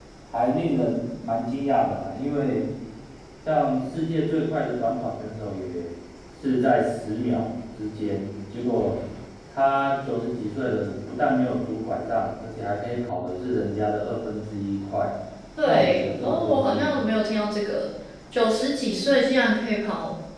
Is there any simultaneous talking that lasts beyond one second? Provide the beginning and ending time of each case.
15.6-16.9

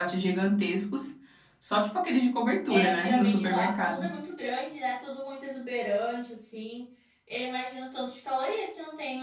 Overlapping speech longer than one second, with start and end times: 2.7-4.1

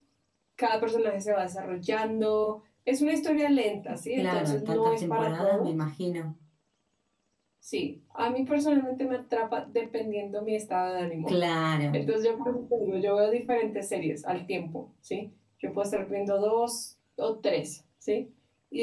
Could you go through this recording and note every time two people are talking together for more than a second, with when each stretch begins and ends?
4.2-5.7

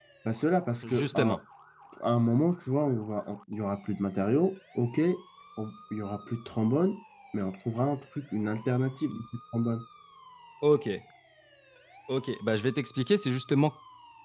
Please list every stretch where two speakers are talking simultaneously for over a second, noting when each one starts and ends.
none

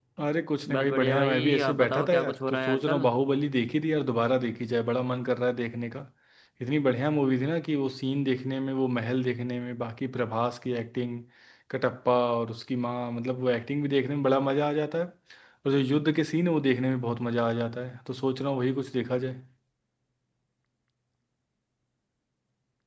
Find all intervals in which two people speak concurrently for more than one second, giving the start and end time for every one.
0.7-3.1

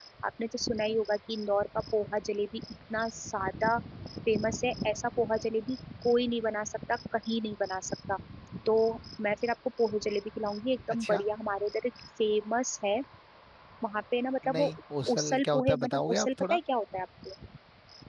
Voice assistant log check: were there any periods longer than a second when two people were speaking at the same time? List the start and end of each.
15.1-16.6

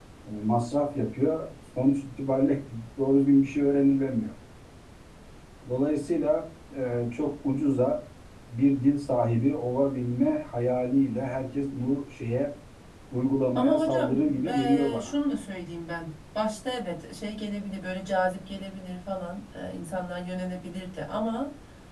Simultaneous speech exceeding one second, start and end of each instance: 13.6-15.1

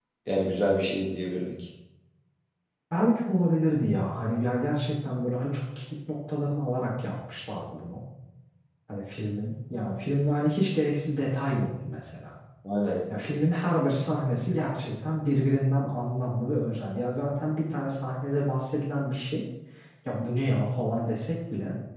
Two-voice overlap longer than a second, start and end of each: none

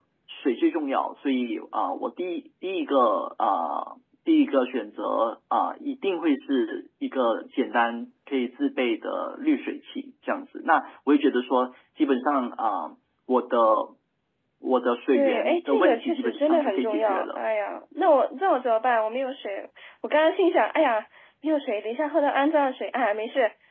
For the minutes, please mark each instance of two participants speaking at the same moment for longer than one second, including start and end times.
15.1-17.4

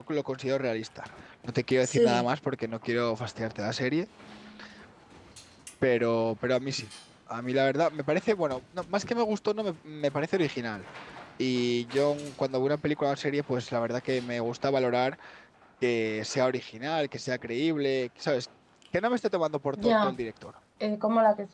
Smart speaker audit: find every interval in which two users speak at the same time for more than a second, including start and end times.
none

